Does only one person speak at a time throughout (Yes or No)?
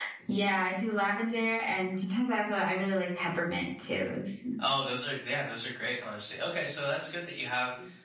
Yes